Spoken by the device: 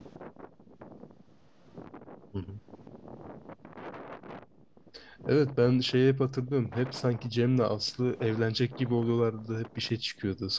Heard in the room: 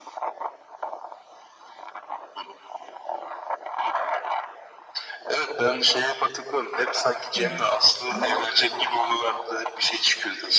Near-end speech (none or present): present